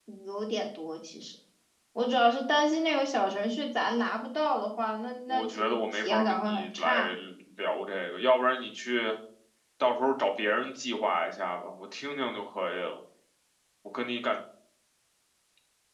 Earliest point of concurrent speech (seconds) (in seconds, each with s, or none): 5.3 s